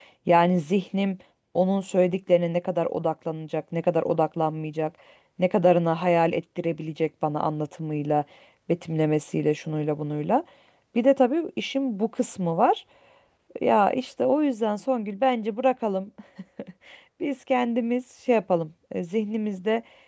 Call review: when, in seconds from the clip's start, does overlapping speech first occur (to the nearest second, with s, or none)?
none